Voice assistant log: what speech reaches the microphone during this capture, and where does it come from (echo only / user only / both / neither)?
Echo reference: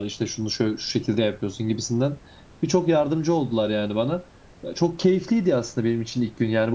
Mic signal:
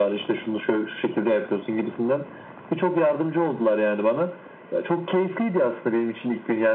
echo only